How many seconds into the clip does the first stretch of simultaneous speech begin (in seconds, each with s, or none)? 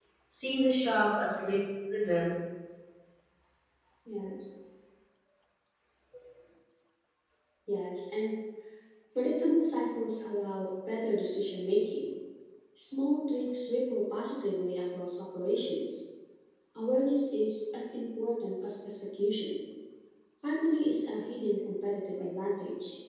none